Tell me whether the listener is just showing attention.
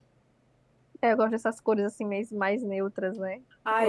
No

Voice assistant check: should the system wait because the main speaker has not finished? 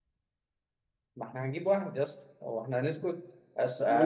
Yes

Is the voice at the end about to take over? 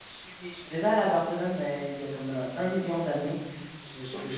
No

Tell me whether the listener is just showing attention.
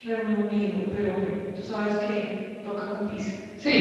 No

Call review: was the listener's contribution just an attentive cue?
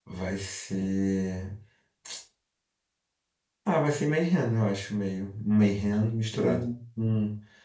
Yes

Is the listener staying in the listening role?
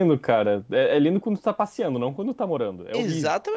No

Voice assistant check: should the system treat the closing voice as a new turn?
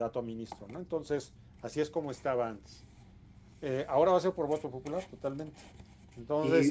No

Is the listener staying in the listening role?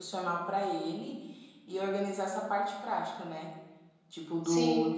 Yes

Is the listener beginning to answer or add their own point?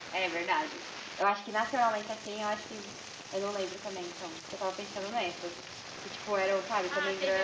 Yes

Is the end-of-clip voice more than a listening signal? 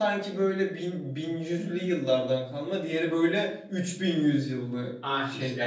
Yes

